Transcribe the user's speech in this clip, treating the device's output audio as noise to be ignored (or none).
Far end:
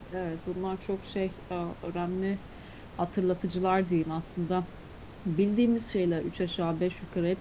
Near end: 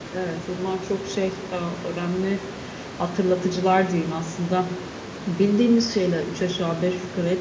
none